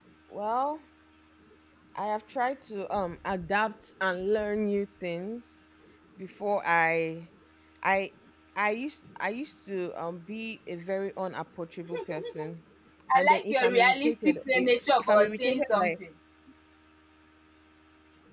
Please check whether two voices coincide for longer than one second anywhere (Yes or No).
Yes